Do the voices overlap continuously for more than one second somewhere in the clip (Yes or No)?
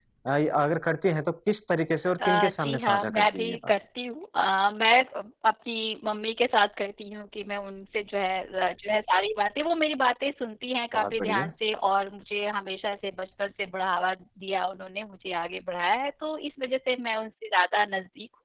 Yes